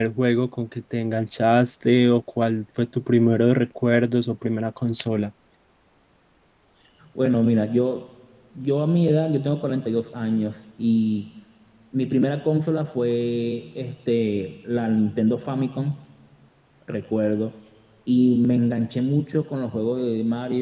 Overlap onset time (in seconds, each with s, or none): none